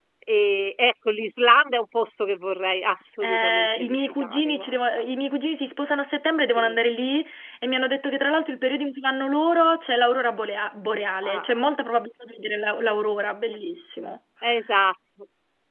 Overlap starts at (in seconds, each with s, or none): 3.2 s